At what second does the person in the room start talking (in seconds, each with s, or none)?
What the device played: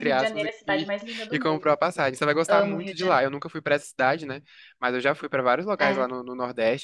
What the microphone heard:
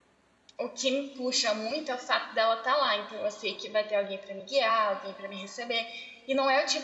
0.6 s